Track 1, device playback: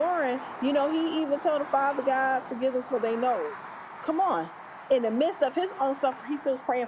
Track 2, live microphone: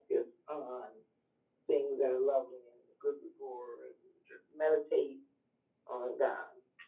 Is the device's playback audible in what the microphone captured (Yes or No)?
No